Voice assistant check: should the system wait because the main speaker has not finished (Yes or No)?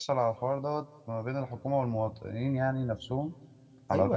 No